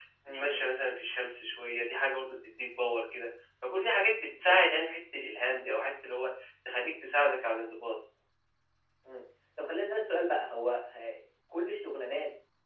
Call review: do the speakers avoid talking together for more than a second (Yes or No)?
Yes